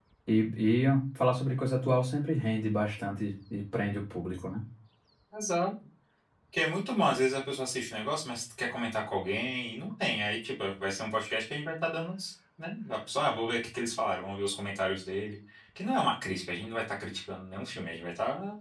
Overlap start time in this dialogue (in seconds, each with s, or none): none